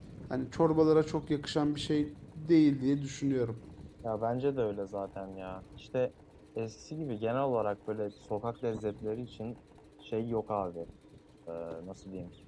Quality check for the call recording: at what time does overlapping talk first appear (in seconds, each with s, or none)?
none